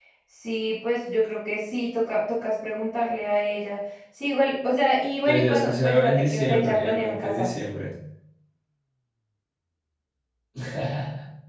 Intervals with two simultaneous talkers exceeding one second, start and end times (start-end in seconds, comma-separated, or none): 5.2-7.5